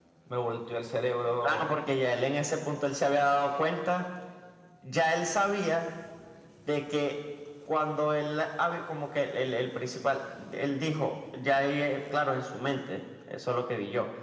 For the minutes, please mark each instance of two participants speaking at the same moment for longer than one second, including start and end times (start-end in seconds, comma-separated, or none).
none